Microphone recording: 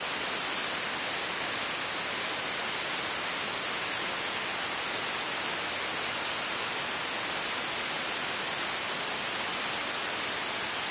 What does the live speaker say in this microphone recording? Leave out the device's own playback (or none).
none